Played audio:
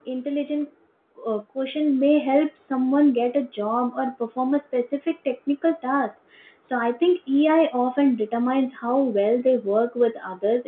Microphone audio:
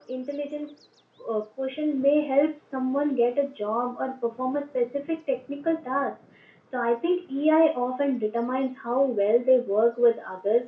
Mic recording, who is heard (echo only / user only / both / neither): echo only